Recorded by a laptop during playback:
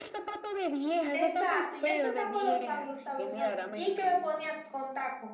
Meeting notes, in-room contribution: present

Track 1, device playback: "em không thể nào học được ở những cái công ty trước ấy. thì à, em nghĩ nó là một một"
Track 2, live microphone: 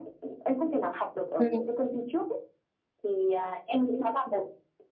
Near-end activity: present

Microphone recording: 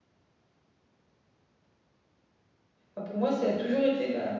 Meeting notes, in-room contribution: present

